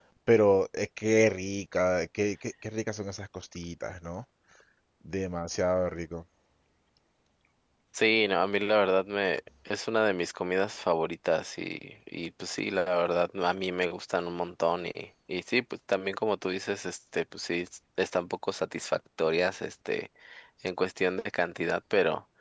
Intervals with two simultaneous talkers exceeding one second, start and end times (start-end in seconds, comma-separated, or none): none